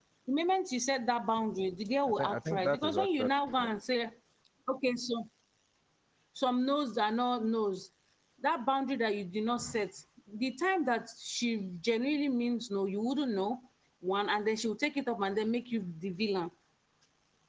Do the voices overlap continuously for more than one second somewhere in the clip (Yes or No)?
Yes